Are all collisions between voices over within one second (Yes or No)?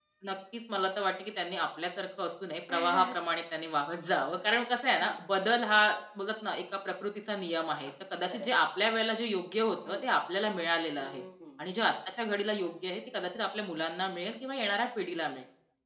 Yes